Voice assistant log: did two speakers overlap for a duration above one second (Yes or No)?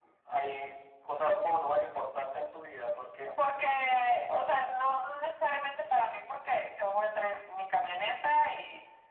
No